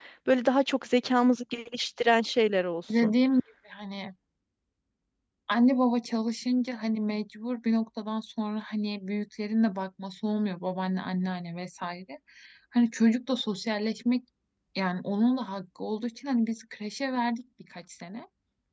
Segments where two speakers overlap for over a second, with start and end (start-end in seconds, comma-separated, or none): none